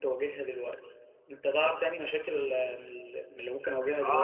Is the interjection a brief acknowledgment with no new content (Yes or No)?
No